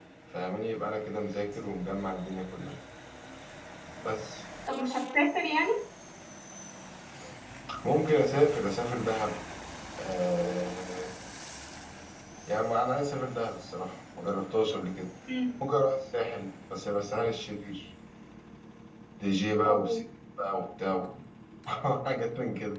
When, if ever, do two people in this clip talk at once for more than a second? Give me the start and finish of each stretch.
none

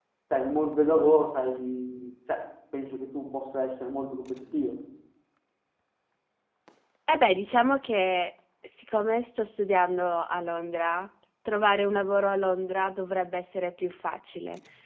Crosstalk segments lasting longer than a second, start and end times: none

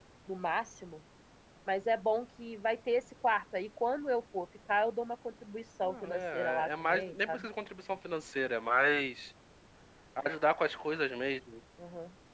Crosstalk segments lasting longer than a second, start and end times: 5.8-7.5

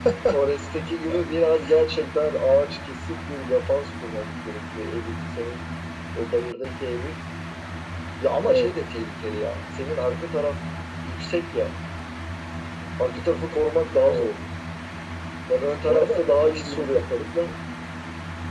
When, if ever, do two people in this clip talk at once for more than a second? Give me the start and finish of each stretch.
15.9-17.1

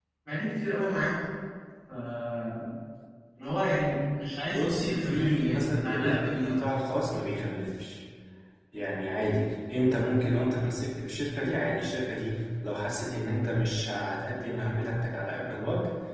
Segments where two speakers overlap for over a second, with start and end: 4.5-6.5

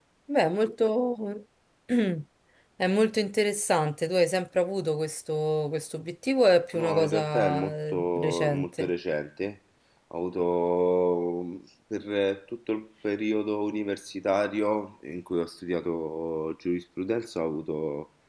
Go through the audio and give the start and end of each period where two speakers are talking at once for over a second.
6.7-8.9

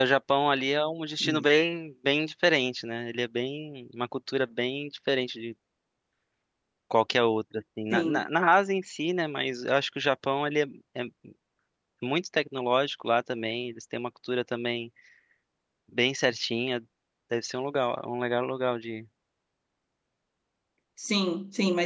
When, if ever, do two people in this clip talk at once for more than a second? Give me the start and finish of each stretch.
none

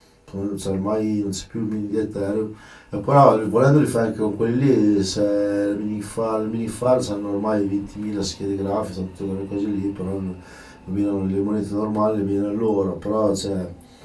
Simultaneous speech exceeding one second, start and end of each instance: none

